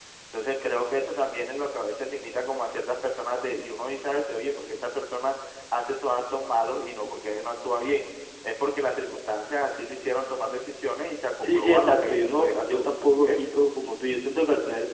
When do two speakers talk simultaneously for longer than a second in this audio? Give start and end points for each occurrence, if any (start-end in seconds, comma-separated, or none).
11.4-13.6